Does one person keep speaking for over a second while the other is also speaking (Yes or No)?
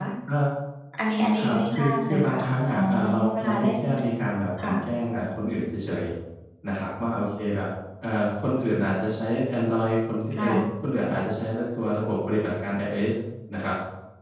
Yes